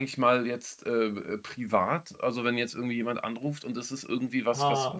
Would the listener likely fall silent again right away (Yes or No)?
Yes